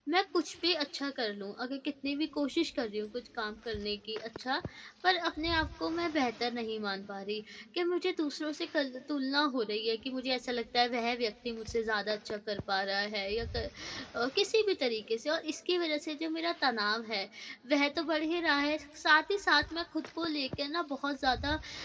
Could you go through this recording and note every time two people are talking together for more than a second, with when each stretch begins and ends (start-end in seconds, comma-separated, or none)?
none